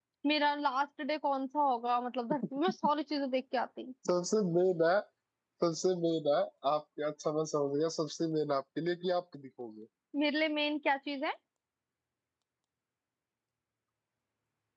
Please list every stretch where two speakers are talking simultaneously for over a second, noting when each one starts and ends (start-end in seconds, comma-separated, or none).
none